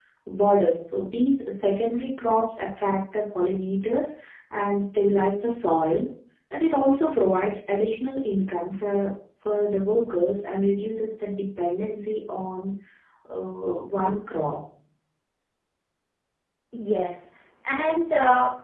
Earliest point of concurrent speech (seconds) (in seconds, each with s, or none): none